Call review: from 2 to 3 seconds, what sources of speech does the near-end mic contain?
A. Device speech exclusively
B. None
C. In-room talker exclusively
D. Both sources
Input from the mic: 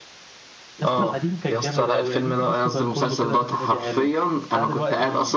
D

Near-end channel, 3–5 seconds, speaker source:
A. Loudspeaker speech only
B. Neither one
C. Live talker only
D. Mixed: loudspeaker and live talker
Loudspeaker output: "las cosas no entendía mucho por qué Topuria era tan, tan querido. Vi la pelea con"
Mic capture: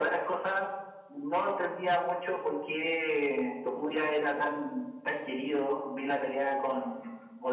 A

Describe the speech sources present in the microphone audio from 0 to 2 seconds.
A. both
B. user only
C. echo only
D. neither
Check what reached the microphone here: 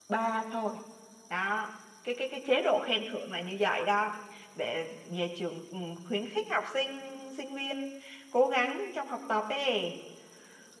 B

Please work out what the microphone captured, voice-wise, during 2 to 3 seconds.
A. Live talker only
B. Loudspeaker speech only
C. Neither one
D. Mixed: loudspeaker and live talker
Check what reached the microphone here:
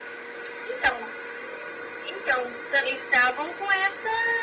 B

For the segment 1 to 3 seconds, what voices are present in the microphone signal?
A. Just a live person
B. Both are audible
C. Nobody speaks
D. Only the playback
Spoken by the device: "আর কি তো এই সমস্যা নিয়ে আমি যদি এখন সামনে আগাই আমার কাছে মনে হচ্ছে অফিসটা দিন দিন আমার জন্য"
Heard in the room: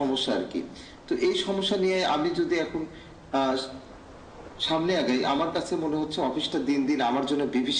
D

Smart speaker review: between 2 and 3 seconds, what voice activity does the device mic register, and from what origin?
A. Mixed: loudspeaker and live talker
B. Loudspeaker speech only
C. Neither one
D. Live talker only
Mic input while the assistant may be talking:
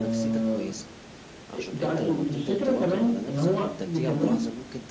A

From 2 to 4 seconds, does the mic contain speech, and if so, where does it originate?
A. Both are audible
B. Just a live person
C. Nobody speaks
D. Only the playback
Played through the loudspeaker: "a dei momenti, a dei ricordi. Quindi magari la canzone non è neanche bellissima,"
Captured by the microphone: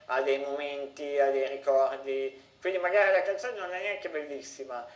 D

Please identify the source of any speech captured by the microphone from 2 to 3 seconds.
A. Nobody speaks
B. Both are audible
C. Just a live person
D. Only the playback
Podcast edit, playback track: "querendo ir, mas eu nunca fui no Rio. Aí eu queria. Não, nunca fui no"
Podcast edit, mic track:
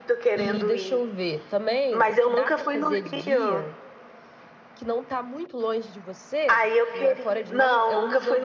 B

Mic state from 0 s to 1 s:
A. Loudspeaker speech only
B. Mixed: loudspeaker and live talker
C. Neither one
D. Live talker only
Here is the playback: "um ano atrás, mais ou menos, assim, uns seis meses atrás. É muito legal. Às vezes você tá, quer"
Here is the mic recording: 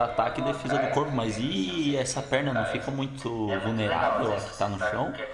B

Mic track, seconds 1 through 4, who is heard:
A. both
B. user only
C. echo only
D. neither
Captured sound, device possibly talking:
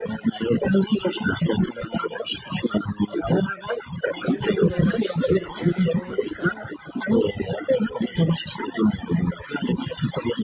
C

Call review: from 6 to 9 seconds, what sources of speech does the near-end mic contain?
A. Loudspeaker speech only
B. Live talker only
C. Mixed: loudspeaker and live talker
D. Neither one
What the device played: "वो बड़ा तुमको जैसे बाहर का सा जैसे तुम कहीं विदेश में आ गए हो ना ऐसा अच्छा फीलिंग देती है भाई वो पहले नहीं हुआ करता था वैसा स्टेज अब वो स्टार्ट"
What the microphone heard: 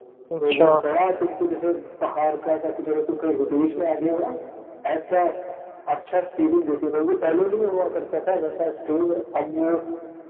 A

